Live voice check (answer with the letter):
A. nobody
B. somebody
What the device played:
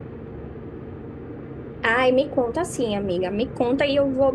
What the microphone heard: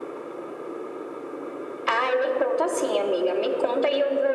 A